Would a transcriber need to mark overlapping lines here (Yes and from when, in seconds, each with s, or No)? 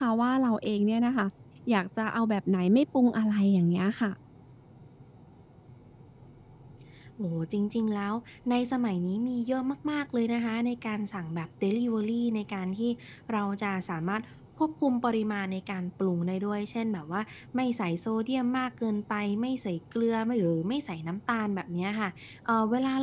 No